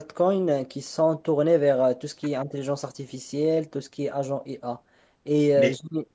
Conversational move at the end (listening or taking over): listening